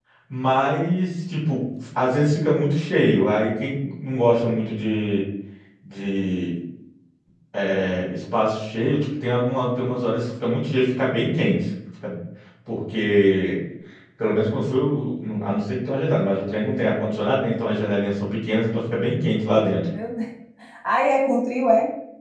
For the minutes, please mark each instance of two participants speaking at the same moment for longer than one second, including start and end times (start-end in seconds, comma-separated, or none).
none